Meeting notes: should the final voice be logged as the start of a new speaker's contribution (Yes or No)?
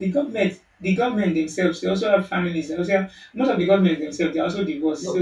Yes